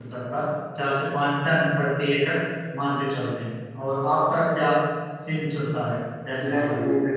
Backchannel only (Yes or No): No